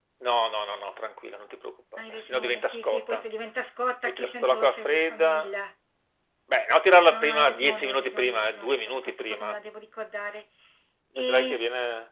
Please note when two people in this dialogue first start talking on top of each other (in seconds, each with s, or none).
2.0 s